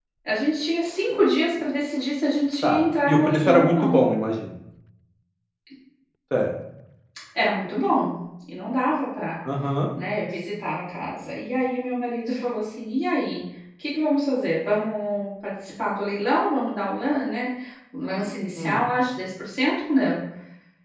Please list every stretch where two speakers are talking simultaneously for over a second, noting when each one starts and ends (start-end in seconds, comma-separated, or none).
2.6-4.0